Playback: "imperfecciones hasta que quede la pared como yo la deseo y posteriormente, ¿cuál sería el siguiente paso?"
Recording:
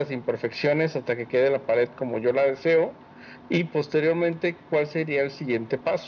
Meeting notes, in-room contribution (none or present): none